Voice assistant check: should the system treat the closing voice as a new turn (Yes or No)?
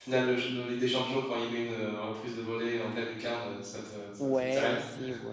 Yes